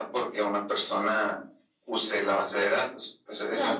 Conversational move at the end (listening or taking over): taking over